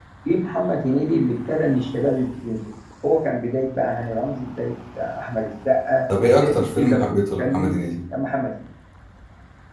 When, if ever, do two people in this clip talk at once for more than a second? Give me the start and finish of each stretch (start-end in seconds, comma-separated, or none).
6.3-7.8